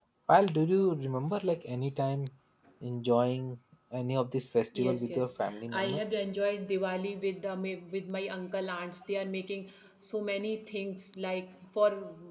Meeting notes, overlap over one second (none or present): present